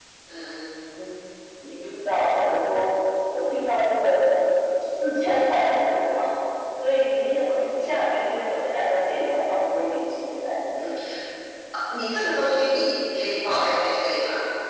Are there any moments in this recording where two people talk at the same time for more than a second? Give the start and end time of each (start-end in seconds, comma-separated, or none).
none